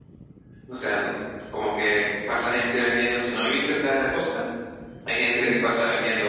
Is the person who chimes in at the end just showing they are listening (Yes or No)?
Yes